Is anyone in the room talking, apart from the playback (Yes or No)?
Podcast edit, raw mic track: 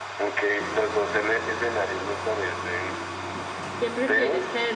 Yes